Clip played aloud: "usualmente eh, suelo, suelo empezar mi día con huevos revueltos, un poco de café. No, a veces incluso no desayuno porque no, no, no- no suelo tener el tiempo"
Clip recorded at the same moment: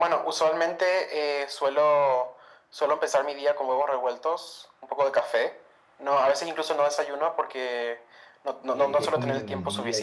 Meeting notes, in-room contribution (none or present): present